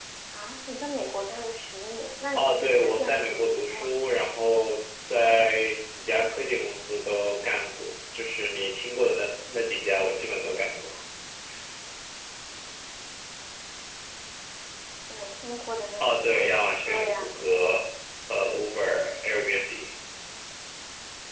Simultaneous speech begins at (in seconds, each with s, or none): 2.4 s